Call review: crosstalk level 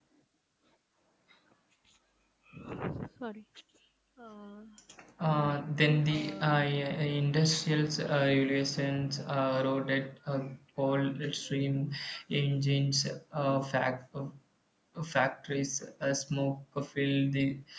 present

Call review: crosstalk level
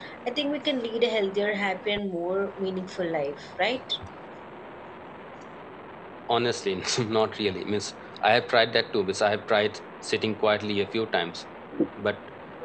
none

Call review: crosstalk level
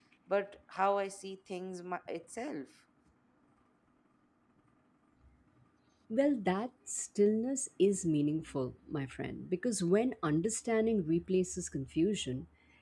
none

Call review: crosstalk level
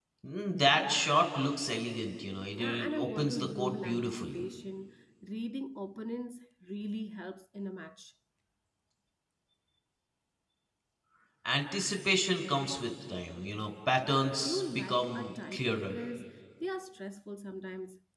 present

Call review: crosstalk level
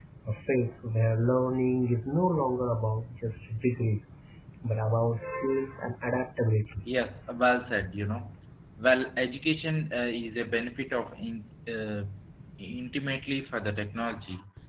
none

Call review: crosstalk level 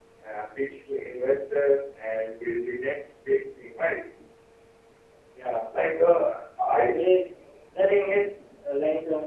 none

